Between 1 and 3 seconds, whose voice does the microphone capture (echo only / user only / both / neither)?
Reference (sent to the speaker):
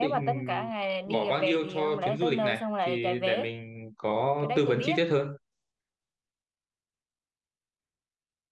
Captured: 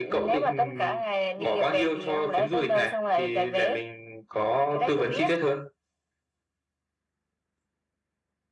echo only